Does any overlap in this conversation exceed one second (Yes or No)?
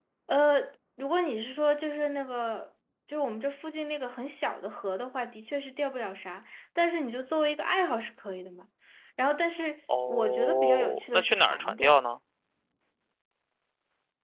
Yes